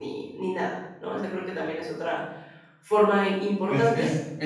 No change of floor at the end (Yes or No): No